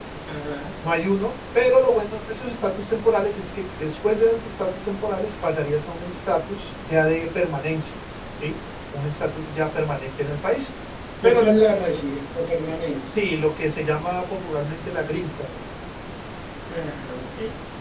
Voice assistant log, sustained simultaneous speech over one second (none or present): none